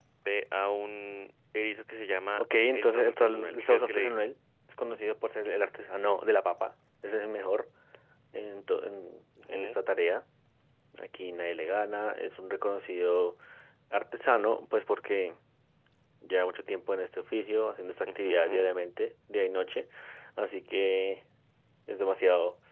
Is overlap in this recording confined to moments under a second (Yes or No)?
No